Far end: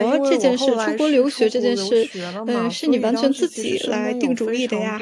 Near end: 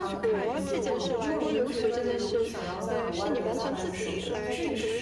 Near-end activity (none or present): present